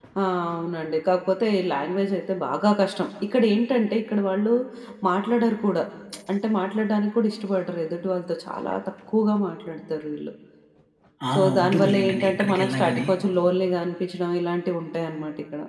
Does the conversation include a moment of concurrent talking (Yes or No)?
Yes